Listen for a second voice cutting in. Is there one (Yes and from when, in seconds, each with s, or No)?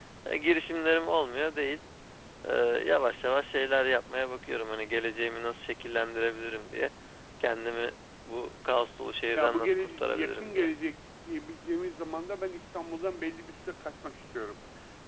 Yes, from 9.3 s